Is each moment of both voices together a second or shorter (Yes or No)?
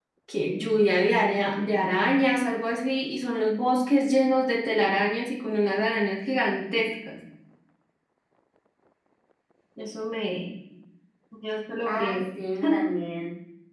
Yes